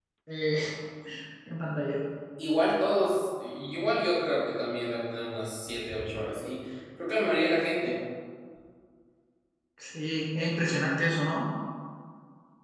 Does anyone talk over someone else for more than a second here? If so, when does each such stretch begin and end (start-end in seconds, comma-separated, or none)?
none